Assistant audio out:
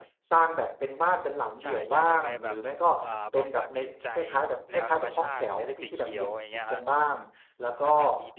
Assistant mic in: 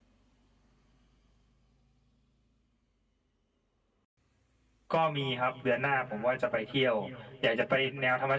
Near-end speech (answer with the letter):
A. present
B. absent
A